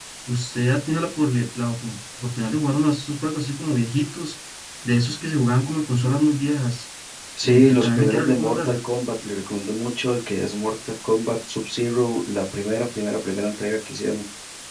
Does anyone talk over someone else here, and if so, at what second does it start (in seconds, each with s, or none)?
7.4 s